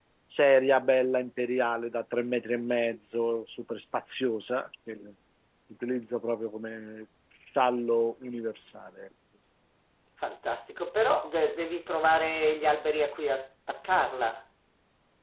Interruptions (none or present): none